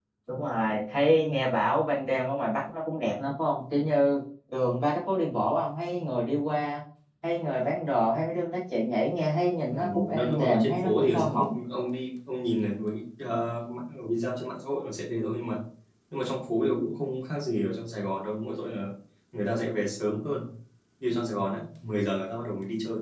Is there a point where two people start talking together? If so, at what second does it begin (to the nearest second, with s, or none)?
10 s